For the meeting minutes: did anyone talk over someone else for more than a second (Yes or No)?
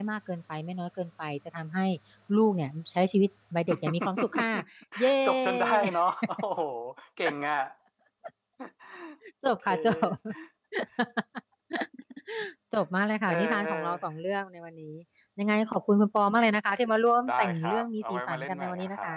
Yes